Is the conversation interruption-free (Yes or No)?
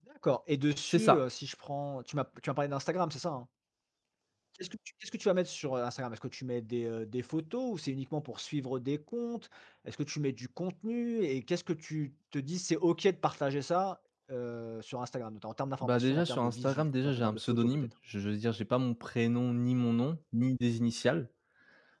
No